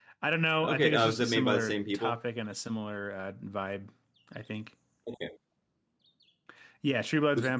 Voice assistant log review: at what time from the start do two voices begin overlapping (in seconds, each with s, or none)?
0.6 s